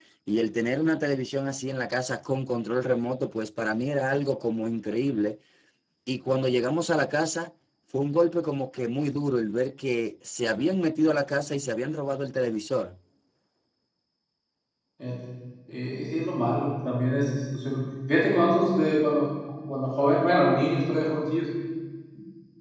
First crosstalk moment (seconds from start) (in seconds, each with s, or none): none